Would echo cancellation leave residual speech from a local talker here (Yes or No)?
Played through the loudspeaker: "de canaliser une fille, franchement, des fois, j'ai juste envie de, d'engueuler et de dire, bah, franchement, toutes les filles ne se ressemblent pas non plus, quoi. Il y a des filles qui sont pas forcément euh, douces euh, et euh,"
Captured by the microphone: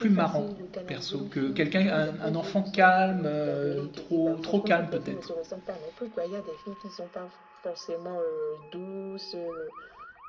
Yes